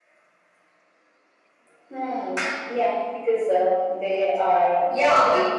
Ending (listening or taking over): taking over